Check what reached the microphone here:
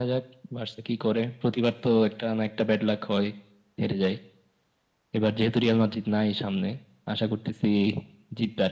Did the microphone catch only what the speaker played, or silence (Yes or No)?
Yes